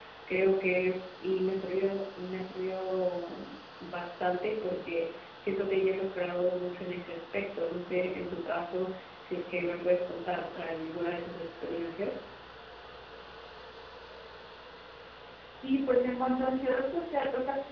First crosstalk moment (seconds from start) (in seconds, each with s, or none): none